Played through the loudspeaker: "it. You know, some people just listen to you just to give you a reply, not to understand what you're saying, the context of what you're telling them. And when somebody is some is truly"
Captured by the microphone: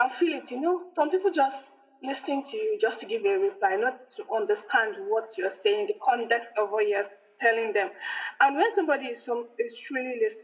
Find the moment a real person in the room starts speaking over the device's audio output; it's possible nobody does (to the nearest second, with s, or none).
none